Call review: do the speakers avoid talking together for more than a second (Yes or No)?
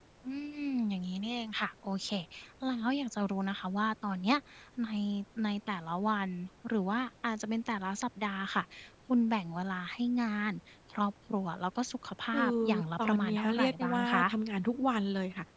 No